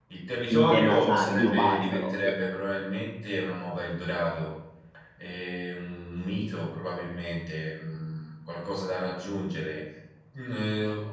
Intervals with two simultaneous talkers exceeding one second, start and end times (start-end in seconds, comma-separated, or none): 0.5-2.2